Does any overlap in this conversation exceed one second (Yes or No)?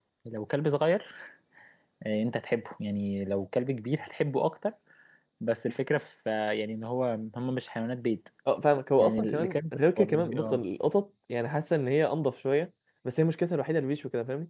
Yes